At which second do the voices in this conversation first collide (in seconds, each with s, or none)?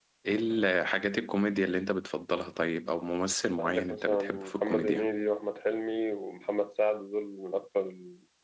3.6 s